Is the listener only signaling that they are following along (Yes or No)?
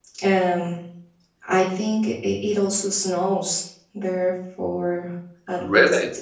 Yes